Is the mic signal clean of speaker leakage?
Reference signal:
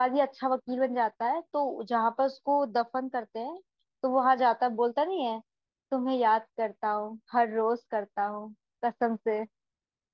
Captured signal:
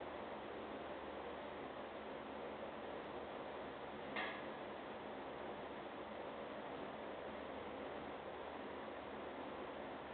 Yes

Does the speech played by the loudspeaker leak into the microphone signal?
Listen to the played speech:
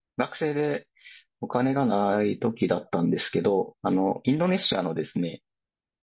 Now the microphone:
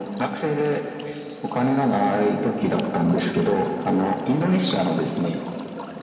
Yes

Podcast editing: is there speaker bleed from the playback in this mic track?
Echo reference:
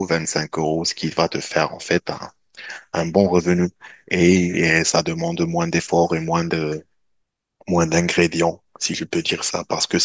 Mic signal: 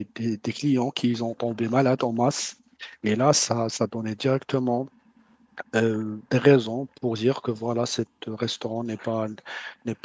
No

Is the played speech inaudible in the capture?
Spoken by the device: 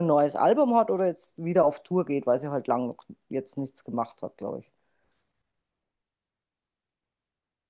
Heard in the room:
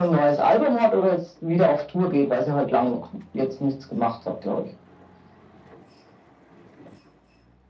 No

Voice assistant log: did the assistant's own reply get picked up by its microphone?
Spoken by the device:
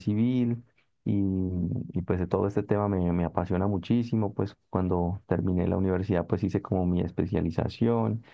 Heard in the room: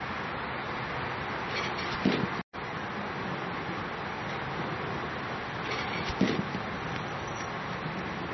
No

